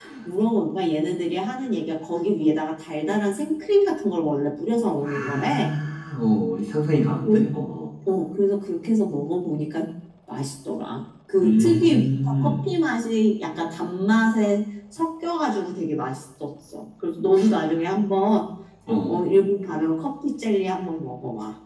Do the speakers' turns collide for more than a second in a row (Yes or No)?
Yes